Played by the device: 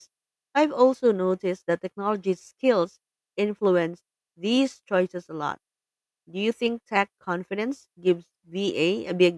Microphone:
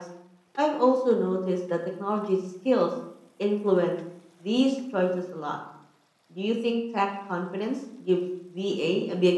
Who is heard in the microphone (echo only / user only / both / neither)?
echo only